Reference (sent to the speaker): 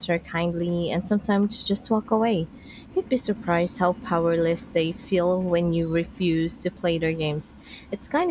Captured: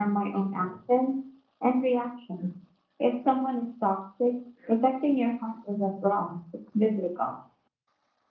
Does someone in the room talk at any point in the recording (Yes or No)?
Yes